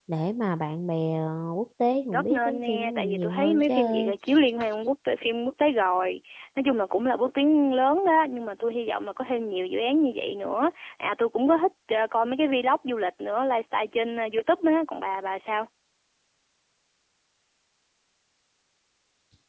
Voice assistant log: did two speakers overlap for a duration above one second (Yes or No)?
Yes